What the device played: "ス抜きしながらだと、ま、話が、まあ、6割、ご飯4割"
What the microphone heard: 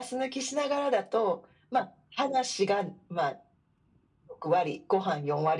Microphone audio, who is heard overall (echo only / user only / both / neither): echo only